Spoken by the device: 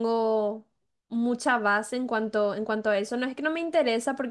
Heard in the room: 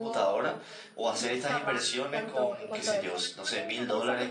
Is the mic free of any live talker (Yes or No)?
No